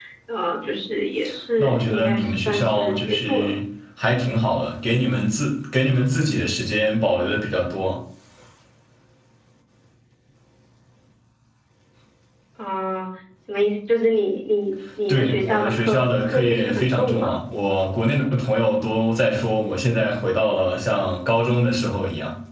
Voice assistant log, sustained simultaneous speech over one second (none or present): present